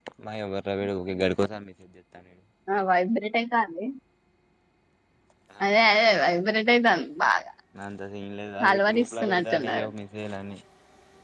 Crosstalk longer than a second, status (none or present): present